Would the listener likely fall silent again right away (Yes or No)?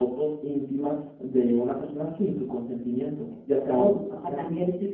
No